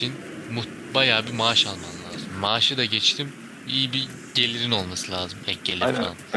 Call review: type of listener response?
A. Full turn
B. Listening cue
A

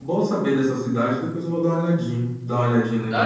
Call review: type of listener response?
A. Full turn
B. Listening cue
B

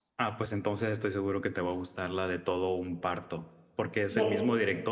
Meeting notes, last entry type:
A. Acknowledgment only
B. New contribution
A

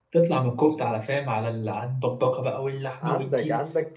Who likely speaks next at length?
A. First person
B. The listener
B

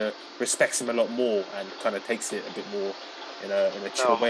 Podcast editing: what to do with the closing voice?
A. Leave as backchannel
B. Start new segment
B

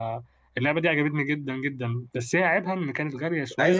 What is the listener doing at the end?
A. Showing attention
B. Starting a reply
B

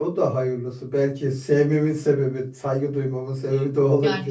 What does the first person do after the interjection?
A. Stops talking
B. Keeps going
A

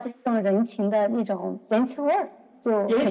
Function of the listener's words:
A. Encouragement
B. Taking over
B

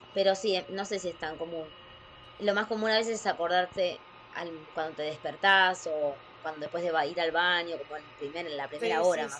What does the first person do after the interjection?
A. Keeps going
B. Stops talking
B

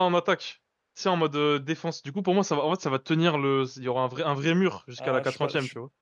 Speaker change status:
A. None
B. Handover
B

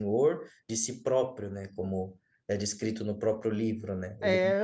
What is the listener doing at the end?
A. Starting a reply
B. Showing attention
A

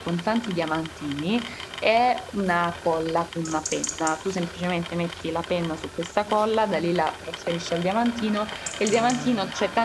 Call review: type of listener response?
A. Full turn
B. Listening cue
B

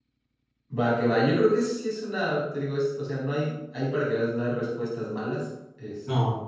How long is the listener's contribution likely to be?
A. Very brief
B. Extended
A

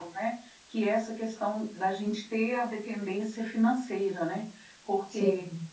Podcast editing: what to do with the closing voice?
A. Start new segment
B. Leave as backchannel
B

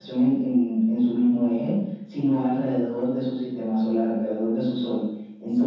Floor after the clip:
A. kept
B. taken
B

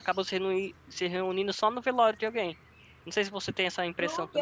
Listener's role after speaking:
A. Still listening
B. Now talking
B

